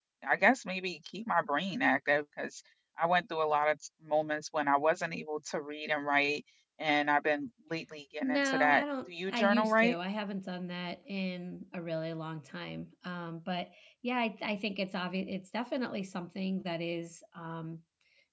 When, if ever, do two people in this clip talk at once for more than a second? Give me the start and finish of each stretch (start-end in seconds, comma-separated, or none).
8.2-9.9